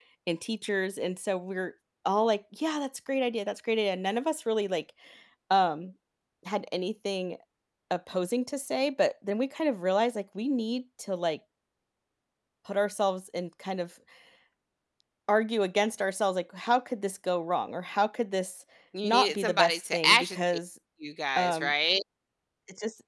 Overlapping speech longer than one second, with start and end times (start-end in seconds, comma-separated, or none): 19.0-20.4